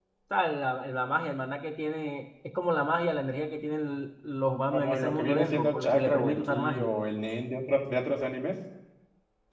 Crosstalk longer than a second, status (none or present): present